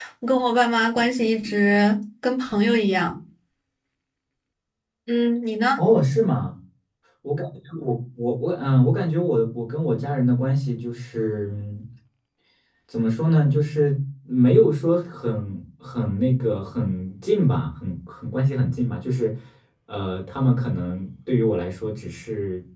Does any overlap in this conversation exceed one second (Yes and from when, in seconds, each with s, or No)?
No